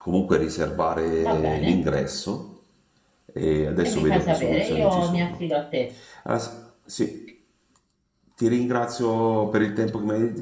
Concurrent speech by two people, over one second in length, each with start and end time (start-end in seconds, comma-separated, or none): 3.8-5.3